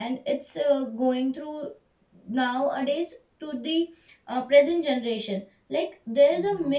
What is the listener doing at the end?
listening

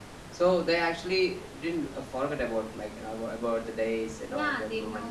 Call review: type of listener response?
taking over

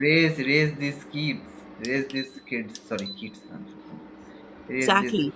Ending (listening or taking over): taking over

